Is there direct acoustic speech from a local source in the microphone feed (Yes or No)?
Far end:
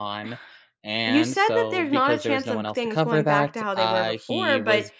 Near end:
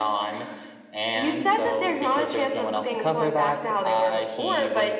No